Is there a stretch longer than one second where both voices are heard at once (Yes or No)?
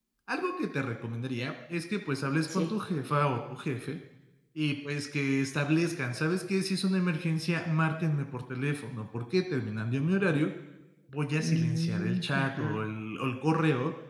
Yes